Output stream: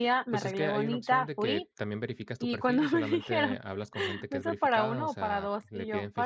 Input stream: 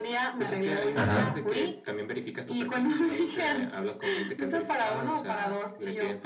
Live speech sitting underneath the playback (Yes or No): No